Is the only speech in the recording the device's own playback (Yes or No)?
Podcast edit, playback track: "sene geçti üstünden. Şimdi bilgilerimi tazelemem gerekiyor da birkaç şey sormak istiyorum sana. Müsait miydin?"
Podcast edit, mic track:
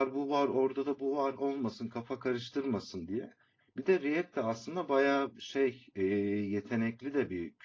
No